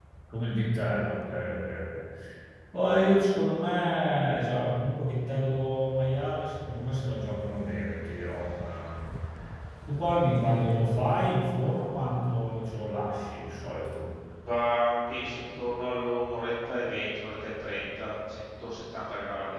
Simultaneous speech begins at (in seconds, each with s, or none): none